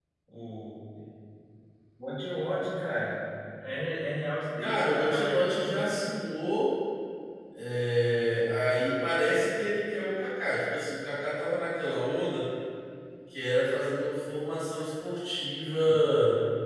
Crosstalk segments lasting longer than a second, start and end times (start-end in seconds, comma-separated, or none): 4.6-6.0